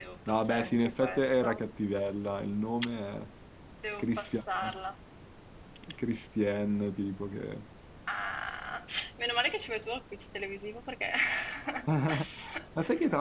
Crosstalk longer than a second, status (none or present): present